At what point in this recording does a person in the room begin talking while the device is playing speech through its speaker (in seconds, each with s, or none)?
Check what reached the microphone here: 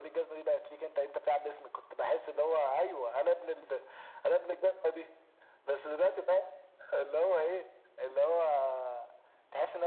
none